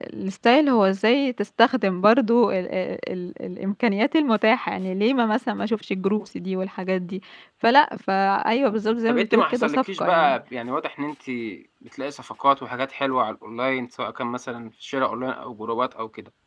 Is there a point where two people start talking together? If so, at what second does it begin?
9.1 s

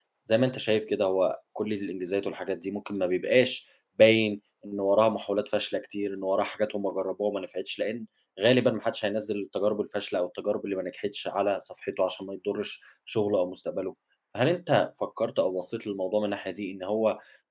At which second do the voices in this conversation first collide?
none

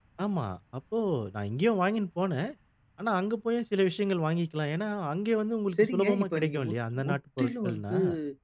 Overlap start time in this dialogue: 5.7 s

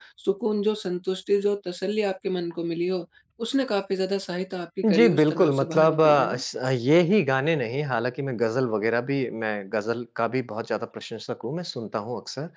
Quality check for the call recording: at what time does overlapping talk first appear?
4.8 s

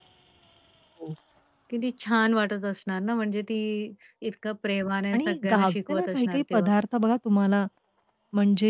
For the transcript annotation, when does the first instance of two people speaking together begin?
5.1 s

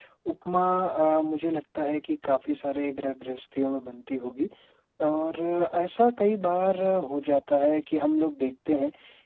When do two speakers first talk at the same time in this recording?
none

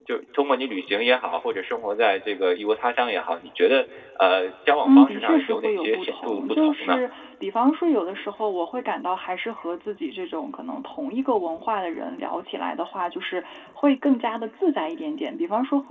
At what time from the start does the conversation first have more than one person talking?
4.8 s

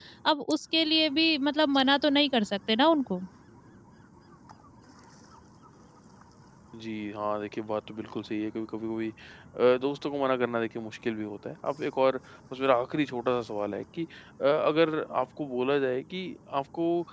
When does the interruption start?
none

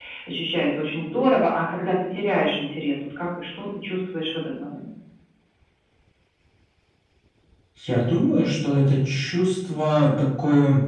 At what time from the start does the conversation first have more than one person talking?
none

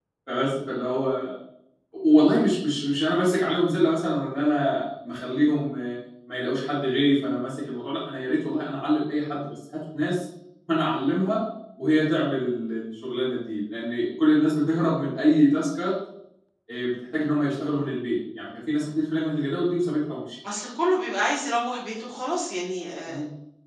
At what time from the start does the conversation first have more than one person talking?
none

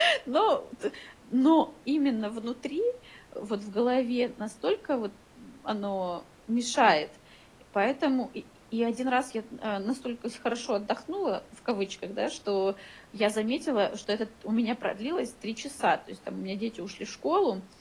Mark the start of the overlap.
none

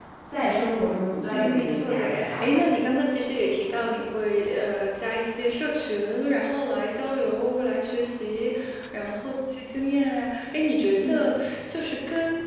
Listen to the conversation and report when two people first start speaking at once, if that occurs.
1.3 s

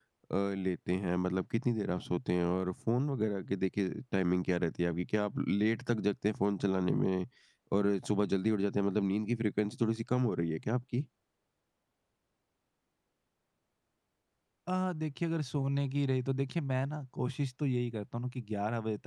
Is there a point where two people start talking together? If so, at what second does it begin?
none

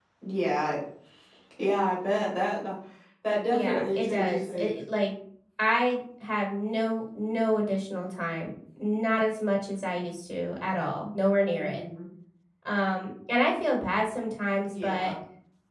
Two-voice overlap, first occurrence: 3.5 s

